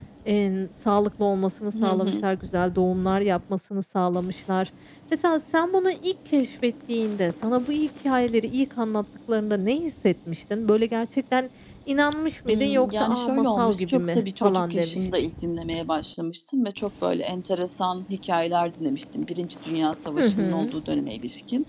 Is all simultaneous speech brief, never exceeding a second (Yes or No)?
No